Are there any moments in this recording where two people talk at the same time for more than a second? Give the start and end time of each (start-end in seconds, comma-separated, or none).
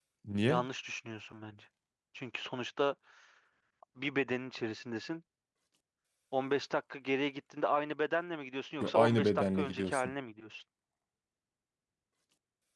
8.8-10.1